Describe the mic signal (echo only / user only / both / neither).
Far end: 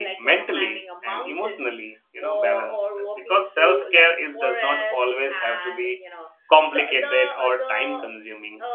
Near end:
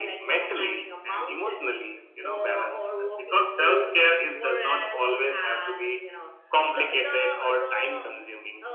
echo only